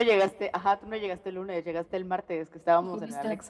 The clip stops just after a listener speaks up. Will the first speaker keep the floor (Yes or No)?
No